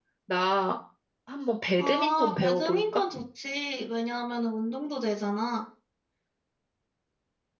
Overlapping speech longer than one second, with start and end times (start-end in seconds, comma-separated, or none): 1.8-3.0